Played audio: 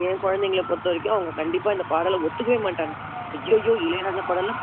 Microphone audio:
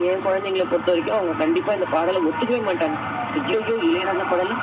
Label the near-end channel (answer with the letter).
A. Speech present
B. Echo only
B